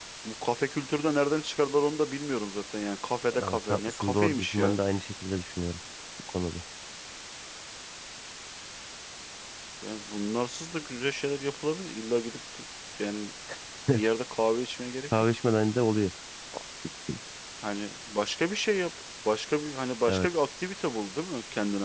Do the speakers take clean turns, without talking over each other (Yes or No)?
No